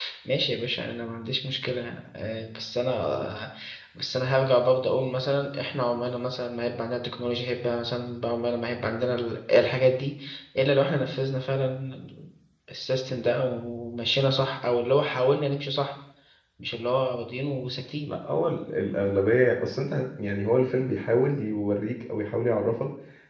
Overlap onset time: none

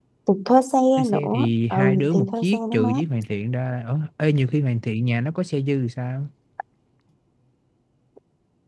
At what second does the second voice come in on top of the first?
1 s

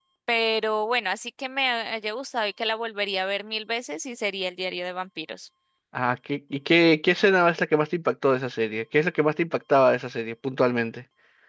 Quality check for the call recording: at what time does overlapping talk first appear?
none

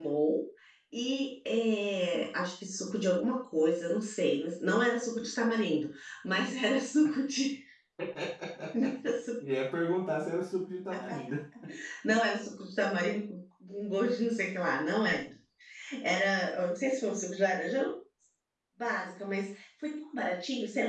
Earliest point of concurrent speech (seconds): none

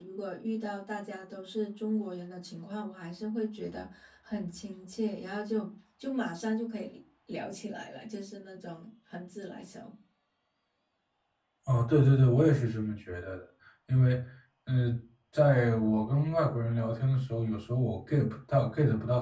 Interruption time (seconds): none

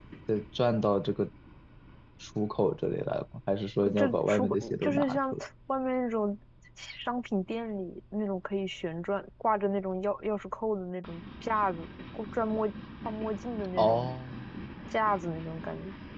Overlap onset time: 4 s

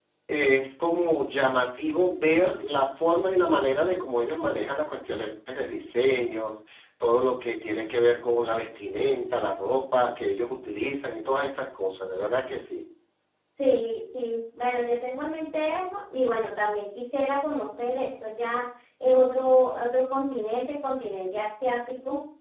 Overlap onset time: none

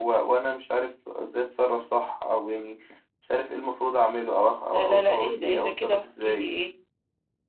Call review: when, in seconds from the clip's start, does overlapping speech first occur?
5 s

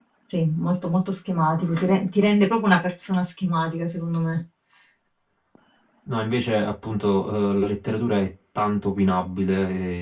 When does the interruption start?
none

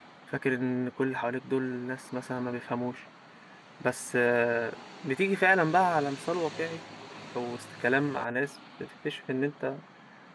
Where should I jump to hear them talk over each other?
none

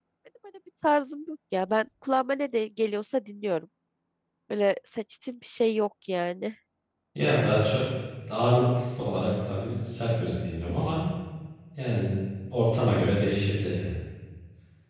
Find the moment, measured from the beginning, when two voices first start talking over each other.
none

